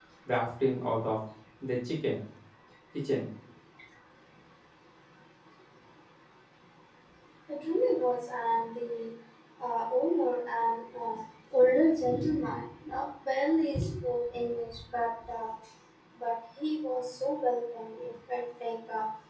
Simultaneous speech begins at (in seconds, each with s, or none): none